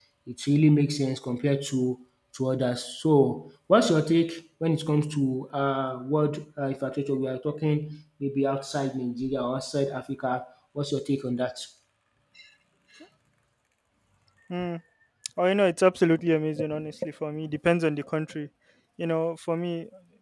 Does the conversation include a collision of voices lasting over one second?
No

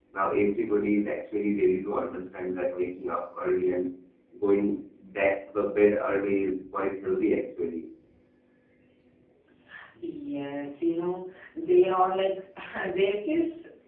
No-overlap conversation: Yes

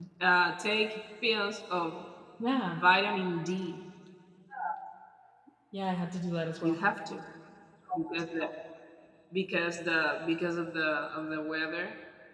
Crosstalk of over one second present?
No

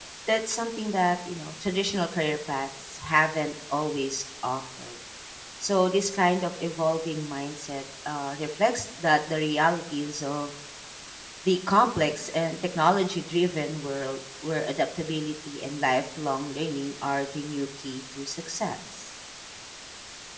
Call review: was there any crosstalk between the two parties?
No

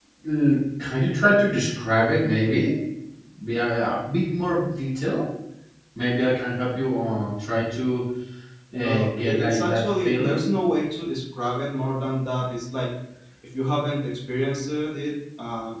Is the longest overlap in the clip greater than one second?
Yes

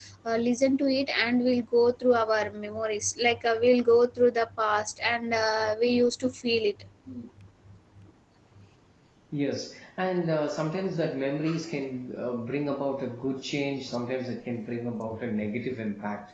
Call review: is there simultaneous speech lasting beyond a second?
No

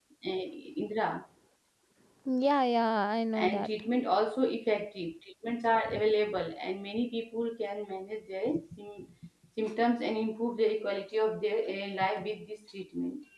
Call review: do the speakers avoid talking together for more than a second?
Yes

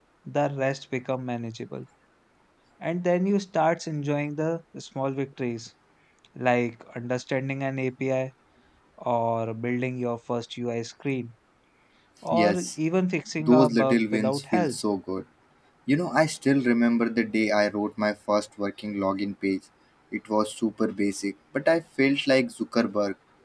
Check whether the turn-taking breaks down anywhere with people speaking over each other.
Yes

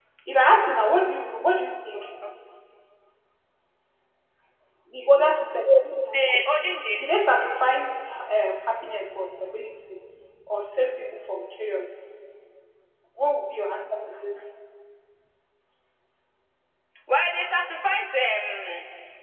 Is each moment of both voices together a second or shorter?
Yes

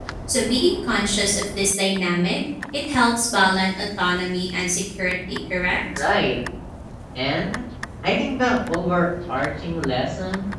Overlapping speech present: No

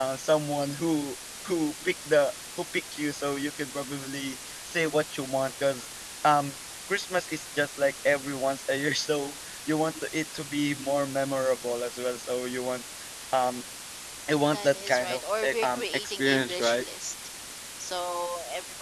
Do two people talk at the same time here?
Yes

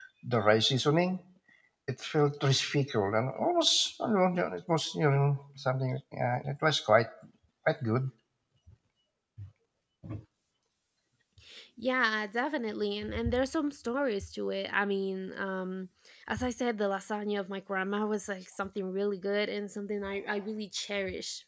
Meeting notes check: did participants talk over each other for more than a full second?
No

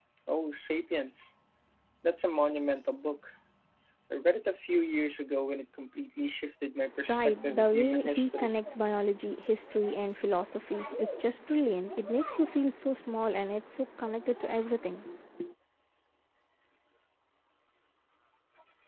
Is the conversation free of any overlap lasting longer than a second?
No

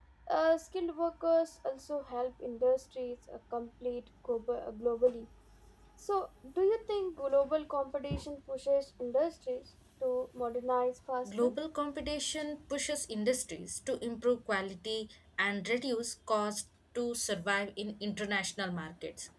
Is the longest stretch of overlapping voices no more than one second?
Yes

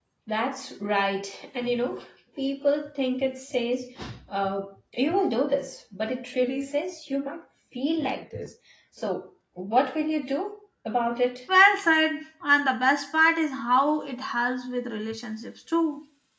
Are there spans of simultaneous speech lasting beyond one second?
No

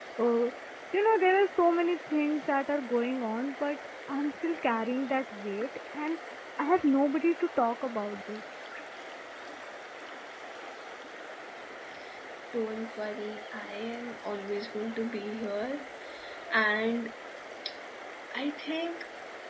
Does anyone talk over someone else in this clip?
No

